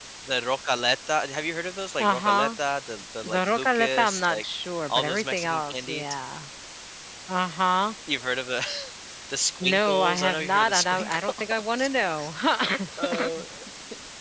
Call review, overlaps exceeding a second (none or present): present